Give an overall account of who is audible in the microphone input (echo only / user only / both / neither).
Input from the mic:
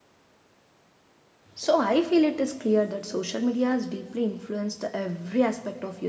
user only